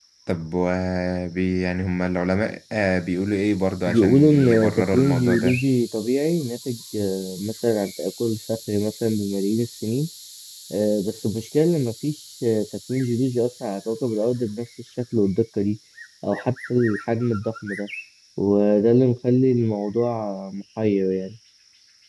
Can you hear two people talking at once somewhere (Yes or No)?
Yes